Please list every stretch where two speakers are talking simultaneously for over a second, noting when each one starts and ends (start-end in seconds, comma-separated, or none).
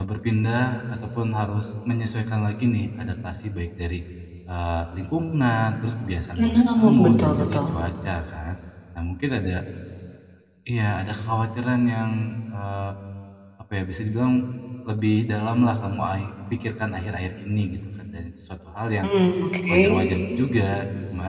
6.4-7.6